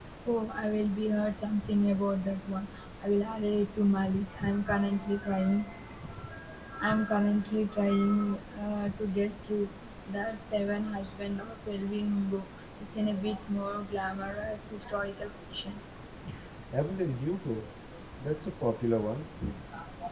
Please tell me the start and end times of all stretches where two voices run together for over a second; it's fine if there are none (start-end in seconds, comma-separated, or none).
none